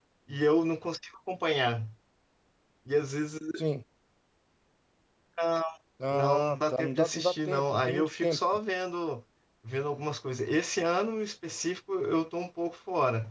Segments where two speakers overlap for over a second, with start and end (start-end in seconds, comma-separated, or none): 6.1-8.4